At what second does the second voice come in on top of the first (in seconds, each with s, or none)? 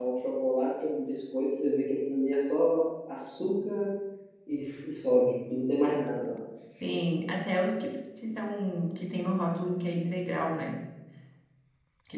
none